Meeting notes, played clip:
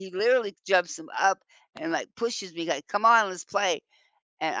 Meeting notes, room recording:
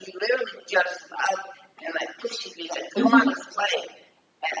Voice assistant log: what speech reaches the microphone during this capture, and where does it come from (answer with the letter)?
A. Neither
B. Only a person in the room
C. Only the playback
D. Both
D